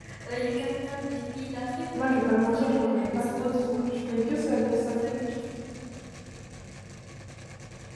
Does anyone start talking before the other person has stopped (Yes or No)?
Yes